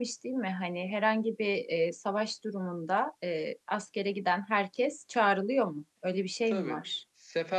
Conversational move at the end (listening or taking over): taking over